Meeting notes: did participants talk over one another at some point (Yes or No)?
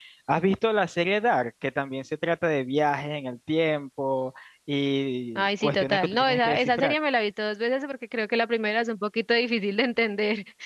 Yes